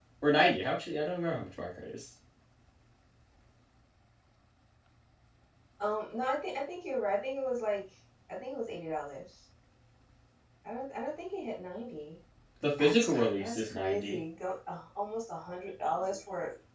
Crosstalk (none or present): present